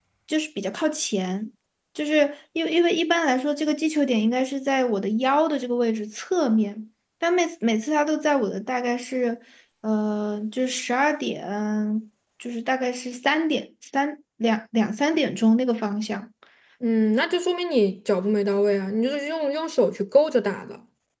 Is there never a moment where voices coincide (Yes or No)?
Yes